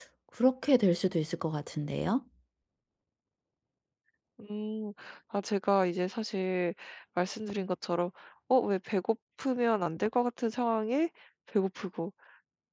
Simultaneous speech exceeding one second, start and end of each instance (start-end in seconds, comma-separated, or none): none